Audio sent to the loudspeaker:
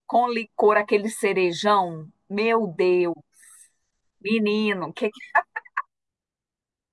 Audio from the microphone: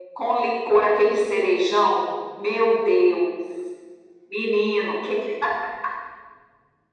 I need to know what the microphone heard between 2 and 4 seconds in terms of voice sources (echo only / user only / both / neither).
echo only